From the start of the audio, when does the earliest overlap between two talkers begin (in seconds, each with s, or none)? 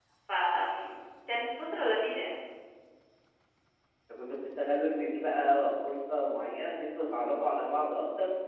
none